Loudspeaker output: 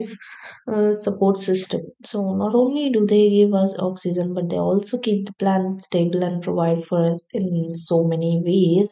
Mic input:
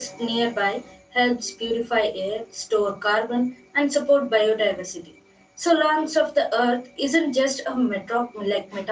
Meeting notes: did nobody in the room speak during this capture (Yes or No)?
No